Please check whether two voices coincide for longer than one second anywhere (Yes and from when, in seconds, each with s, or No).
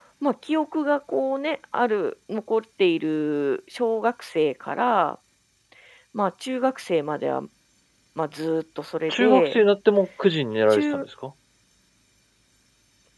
No